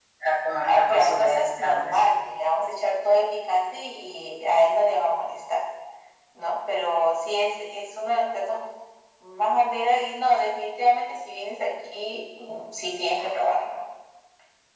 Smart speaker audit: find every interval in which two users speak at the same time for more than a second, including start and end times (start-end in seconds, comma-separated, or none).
0.6-2.1